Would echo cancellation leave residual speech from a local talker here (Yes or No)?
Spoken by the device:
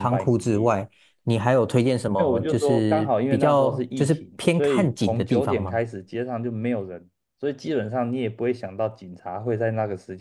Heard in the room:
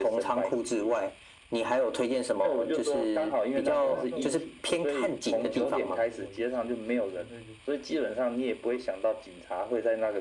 Yes